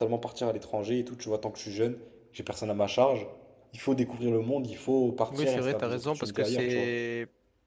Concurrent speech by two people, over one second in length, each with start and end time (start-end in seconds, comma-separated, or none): 5.3-6.9